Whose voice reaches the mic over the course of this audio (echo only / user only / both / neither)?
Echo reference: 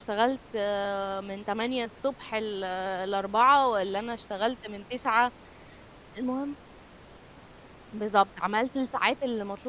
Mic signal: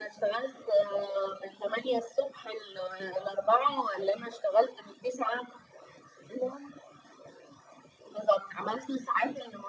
echo only